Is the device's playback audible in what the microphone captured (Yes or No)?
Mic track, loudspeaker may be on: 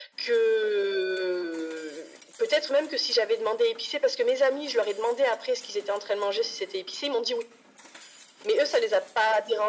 Yes